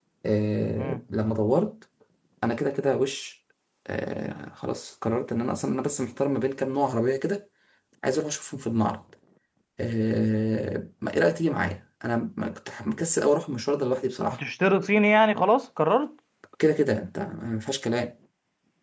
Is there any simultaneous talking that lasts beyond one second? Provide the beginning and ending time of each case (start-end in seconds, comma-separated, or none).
none